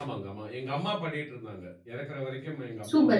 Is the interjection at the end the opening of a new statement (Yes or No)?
Yes